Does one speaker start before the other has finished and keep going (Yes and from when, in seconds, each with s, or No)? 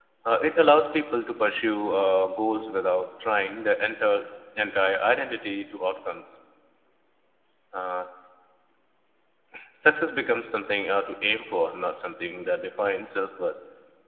No